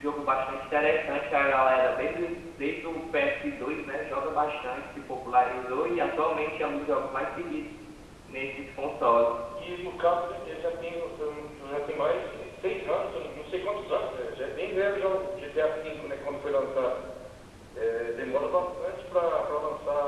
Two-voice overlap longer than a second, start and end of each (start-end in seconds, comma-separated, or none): none